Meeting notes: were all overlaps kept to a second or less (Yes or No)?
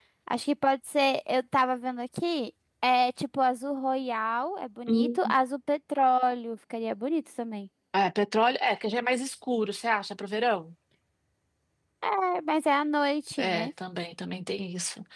Yes